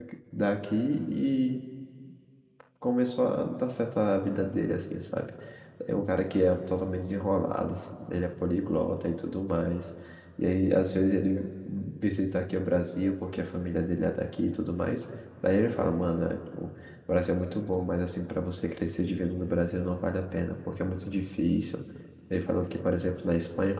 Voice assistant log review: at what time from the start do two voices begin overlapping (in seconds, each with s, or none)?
none